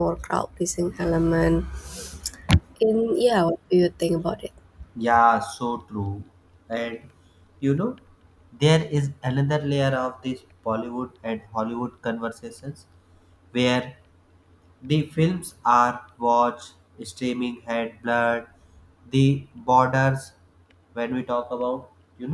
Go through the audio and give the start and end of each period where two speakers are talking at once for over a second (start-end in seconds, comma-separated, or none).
none